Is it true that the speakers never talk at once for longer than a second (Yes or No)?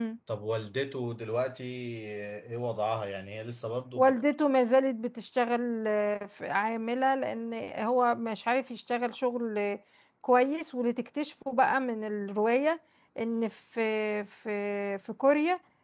Yes